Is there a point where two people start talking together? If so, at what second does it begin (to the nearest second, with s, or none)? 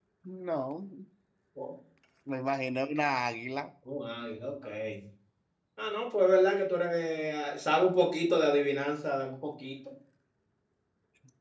none